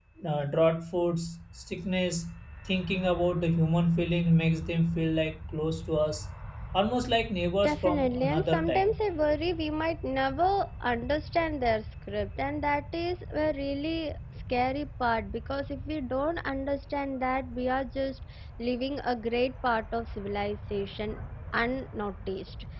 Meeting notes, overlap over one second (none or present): present